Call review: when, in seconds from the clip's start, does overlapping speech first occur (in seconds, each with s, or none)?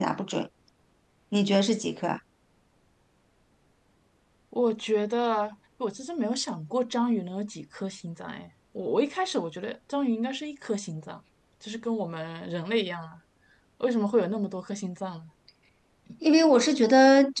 none